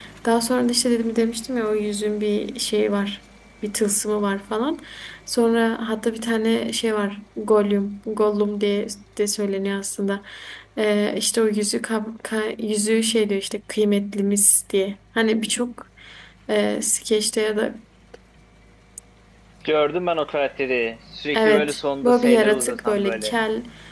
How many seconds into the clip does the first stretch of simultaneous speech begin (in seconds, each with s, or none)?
21.3 s